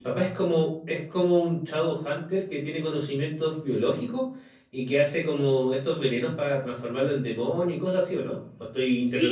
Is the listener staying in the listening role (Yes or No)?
No